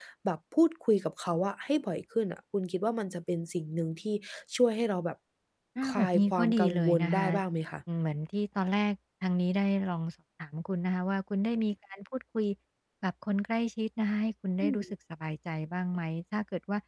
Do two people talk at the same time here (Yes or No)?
Yes